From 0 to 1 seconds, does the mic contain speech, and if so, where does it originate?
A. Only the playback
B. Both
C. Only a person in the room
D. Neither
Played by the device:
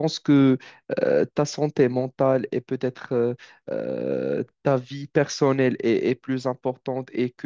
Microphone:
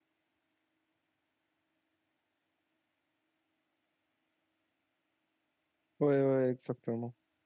D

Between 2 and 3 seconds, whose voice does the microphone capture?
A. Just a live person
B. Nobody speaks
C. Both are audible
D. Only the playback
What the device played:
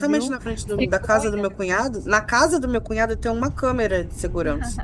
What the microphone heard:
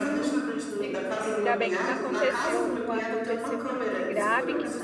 C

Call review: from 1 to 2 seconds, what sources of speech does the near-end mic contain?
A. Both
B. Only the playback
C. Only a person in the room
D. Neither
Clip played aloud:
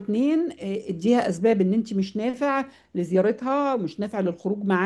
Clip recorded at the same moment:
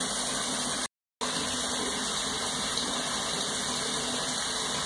D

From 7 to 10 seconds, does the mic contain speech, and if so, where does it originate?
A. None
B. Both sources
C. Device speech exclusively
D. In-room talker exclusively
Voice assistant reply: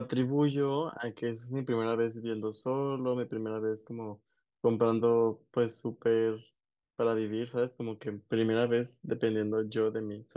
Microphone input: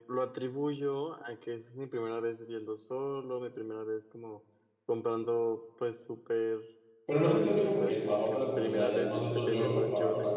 B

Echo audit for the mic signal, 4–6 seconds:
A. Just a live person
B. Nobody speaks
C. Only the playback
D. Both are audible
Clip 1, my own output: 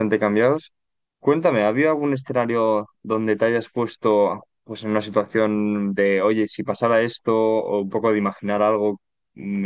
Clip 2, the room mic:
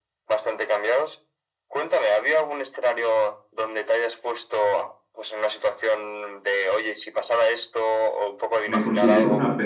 C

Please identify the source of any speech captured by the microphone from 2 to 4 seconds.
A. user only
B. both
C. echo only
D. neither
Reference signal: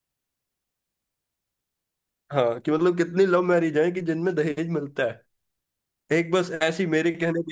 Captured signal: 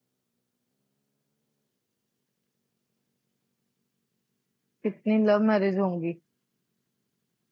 D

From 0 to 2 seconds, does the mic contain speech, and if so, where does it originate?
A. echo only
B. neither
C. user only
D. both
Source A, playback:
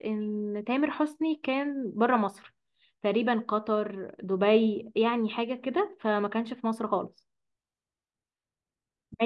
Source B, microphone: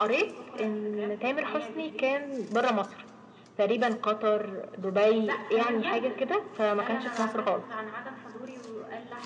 D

